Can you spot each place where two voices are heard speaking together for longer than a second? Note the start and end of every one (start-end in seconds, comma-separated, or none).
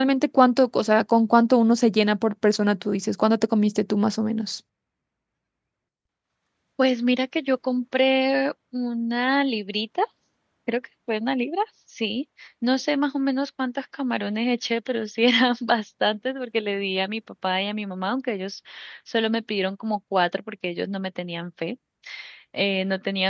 none